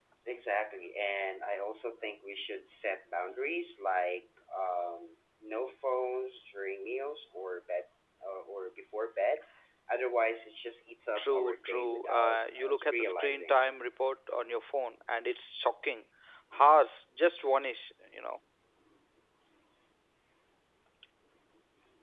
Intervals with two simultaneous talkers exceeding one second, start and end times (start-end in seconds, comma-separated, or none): 11.2-13.6